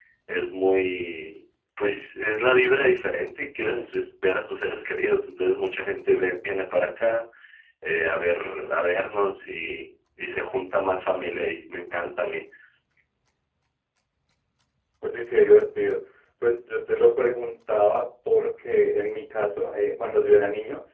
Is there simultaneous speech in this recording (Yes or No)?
No